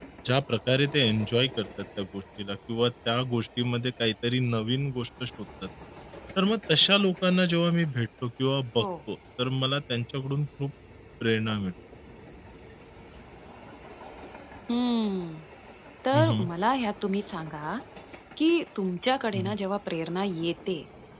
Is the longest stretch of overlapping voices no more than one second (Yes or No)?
Yes